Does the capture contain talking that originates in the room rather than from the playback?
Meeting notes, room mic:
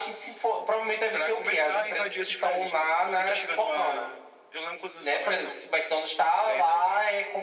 No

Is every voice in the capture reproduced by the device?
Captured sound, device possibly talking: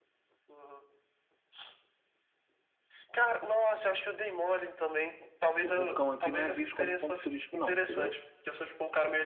No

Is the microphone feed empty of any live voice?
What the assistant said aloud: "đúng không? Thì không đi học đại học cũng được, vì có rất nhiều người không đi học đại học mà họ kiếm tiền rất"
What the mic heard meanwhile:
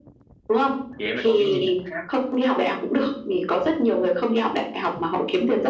No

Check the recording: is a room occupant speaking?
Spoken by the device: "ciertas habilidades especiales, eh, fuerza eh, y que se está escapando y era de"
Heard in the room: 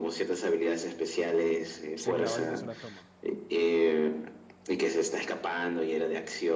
Yes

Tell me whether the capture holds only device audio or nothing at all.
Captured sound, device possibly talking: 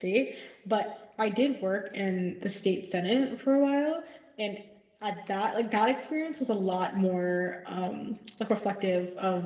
No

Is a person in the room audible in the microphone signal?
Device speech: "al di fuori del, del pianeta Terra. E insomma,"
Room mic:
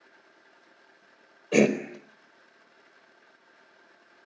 Yes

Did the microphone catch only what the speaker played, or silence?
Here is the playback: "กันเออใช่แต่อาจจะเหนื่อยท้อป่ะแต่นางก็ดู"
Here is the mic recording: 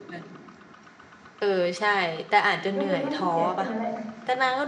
No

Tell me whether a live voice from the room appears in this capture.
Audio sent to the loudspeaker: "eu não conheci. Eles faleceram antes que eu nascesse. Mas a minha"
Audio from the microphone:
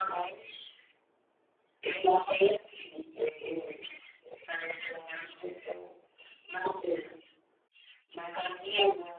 No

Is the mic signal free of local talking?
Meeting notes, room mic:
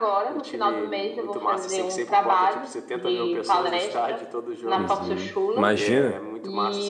No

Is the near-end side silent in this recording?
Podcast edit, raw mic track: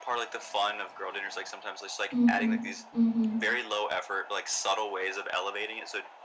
No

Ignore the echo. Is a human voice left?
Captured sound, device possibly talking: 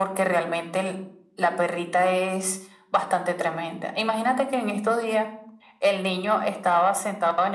No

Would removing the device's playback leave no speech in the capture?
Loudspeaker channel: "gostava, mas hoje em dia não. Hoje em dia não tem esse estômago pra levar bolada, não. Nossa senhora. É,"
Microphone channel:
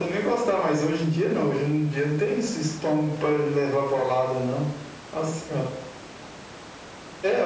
Yes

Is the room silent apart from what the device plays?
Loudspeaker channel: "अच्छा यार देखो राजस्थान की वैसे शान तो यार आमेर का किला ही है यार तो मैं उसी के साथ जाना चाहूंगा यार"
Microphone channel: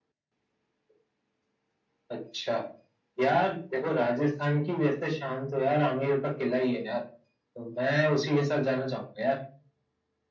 Yes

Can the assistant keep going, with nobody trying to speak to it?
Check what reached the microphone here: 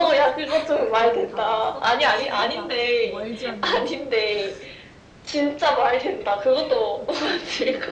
No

